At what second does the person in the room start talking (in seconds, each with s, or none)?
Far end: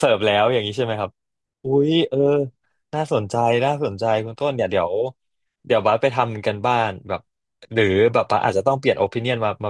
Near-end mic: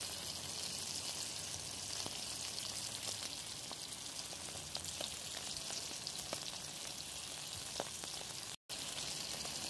none